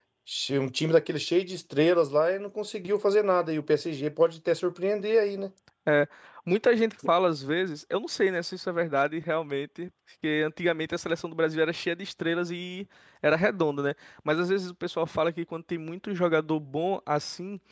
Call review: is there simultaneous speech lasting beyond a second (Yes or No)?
No